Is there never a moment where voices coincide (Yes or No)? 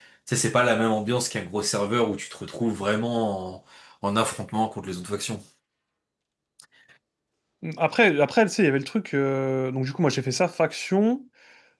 Yes